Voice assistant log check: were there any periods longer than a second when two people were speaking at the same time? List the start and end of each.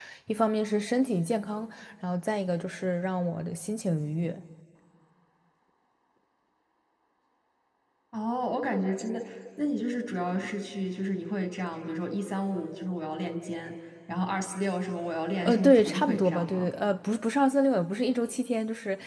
15.4-16.7

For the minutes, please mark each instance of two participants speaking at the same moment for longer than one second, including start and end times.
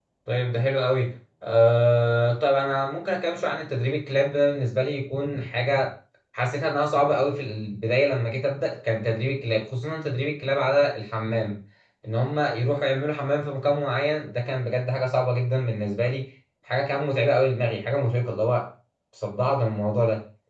none

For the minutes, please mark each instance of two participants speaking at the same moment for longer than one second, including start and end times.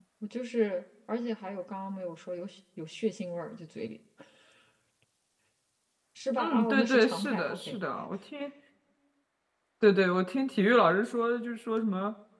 6.4-7.8

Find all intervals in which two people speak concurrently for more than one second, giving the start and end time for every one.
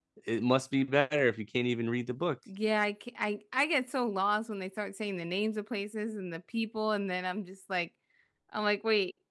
none

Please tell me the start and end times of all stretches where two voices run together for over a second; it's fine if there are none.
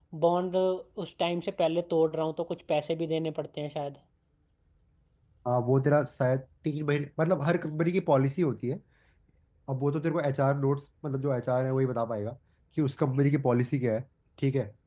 none

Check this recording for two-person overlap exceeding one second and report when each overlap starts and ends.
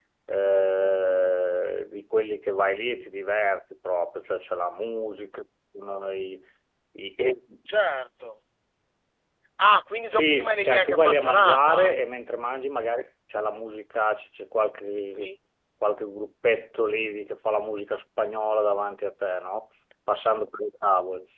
10.1-11.9

